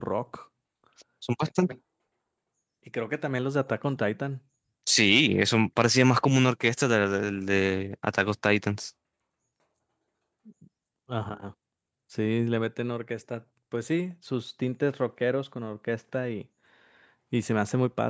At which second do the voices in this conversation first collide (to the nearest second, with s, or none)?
none